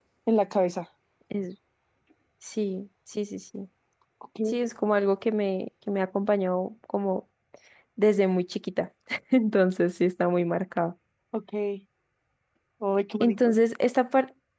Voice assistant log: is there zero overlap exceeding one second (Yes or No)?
Yes